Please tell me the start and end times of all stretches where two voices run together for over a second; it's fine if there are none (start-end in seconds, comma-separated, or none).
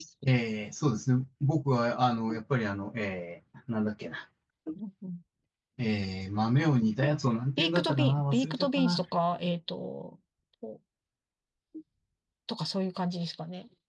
7.6-9.0